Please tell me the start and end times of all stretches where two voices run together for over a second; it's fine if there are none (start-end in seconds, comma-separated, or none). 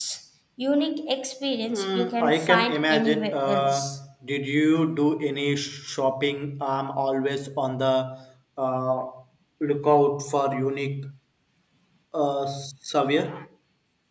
1.7-4.0